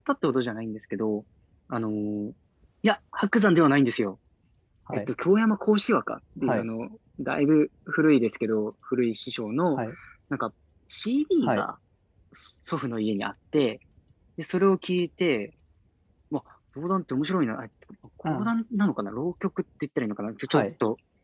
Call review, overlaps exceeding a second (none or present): none